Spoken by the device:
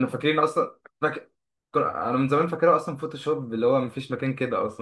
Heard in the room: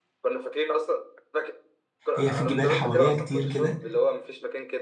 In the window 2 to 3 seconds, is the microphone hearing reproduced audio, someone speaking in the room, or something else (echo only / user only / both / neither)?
both